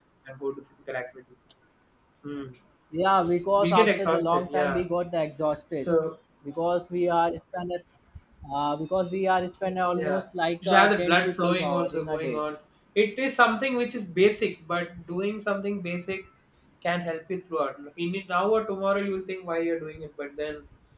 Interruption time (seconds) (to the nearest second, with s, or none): 4 s